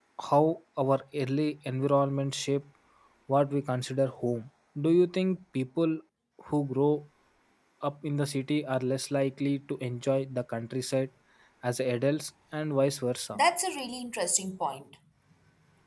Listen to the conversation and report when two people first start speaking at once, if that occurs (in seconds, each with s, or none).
none